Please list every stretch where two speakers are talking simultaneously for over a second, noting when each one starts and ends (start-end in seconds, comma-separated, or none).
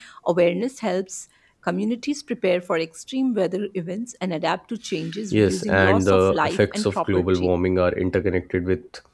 5.3-7.5